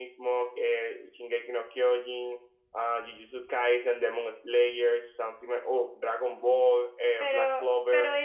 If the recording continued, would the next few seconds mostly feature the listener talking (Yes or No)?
Yes